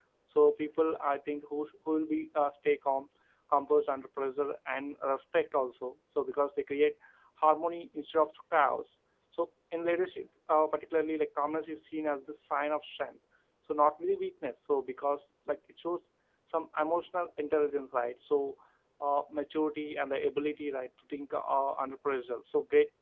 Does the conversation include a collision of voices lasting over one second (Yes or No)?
No